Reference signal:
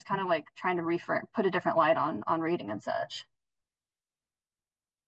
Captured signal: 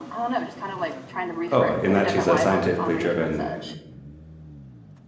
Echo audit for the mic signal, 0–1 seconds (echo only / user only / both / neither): echo only